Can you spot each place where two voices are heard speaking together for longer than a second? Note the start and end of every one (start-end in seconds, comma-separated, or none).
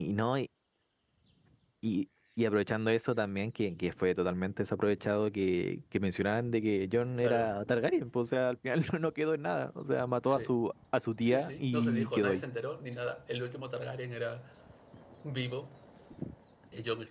11.2-12.4